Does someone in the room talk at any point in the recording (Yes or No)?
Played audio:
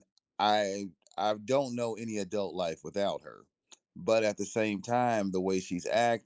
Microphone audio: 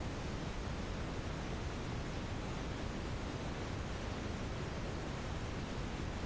No